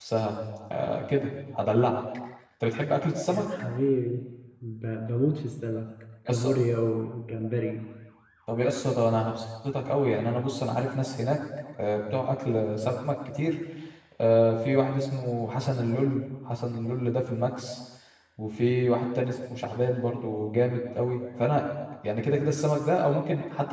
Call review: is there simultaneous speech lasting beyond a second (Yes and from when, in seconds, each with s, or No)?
No